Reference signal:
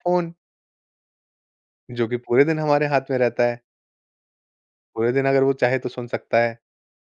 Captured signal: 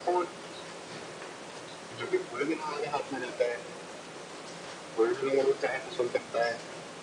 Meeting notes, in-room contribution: none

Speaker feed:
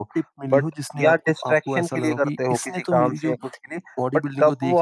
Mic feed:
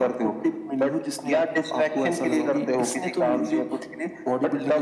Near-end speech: none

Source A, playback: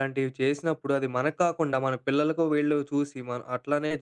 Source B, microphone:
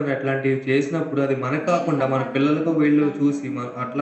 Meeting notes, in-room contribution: present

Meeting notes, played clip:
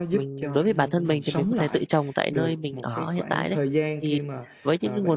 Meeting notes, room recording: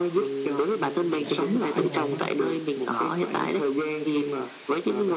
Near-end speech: present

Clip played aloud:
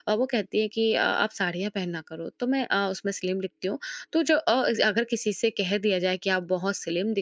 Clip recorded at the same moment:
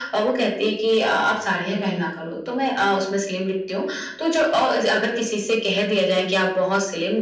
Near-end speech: none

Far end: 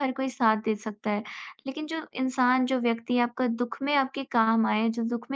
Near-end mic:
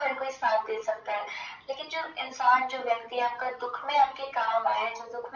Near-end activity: none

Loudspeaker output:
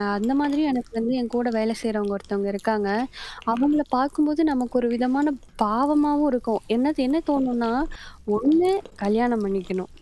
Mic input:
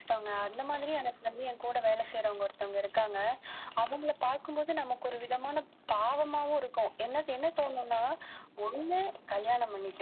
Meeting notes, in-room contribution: none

